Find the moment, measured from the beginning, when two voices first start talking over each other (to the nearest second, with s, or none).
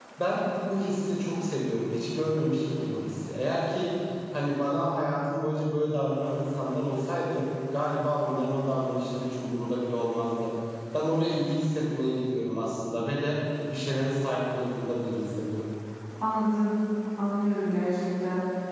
none